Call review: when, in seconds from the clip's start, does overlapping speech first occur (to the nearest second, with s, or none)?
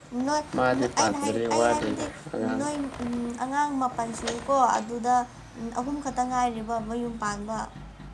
1 s